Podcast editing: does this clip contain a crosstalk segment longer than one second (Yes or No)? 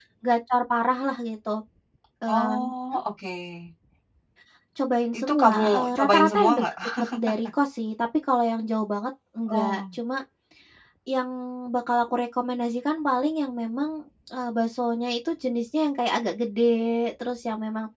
Yes